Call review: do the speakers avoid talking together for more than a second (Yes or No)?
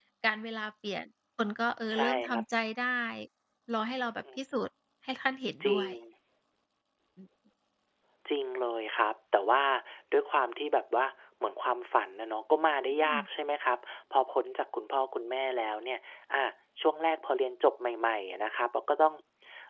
Yes